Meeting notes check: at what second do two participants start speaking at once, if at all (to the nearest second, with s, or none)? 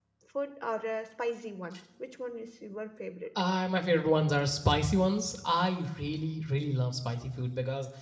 none